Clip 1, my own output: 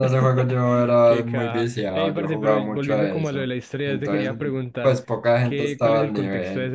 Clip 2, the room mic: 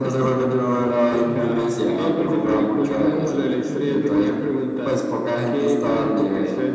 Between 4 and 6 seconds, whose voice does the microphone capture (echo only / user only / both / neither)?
both